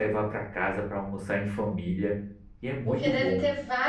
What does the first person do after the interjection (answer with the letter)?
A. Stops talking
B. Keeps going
A